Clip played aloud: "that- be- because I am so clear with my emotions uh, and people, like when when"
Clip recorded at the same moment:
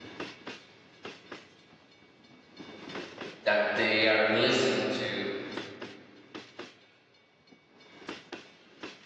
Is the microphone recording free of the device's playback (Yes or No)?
Yes